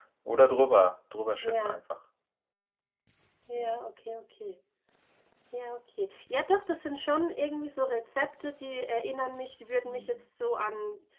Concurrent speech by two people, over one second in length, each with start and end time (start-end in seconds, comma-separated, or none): none